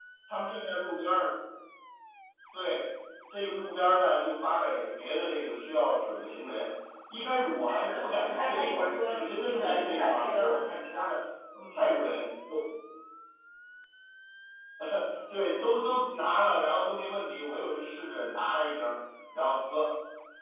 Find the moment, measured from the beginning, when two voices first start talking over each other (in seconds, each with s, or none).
7.7 s